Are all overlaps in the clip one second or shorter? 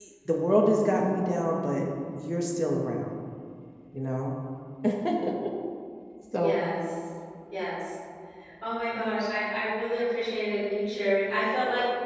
Yes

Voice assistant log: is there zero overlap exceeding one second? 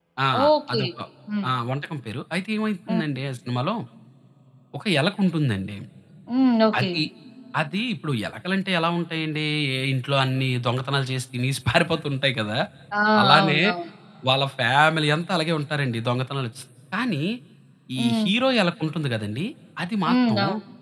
Yes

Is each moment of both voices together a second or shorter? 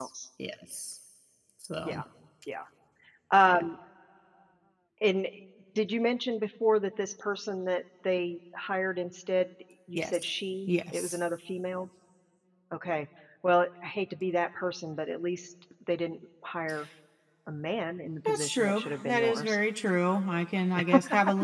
No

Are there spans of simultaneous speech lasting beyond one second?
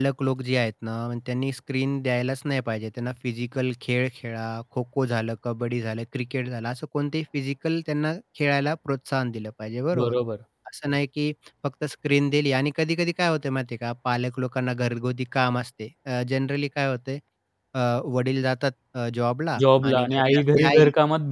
Yes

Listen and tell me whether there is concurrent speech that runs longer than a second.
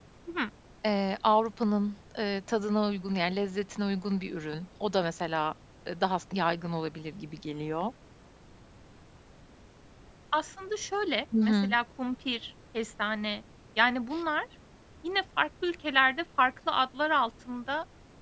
No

